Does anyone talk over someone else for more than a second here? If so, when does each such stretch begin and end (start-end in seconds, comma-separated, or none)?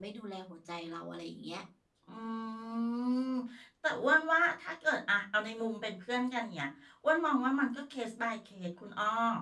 none